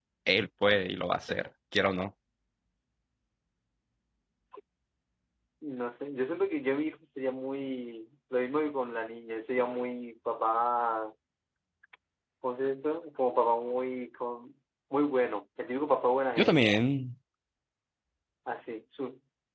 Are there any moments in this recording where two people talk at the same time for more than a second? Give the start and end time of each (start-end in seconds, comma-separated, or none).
none